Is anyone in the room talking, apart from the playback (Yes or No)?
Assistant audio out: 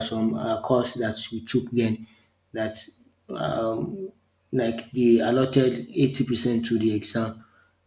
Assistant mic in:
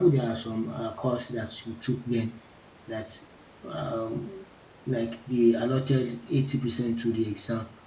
No